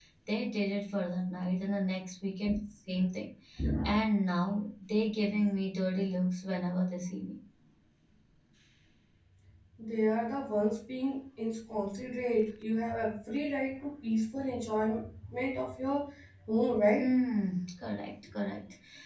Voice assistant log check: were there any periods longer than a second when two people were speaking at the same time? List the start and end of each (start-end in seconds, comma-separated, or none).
none